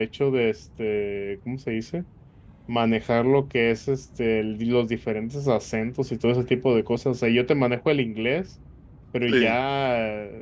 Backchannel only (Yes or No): Yes